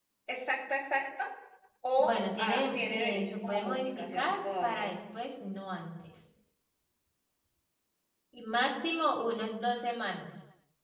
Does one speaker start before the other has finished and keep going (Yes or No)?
Yes